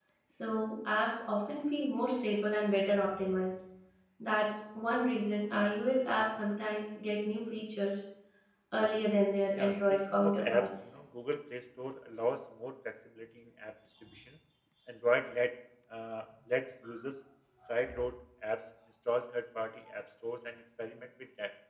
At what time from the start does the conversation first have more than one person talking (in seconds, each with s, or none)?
9.5 s